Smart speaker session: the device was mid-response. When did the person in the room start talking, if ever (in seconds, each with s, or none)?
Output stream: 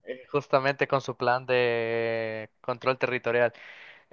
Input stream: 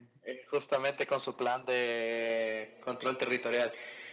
none